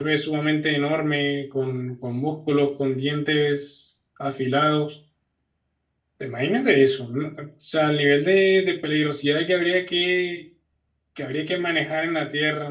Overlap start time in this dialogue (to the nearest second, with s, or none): none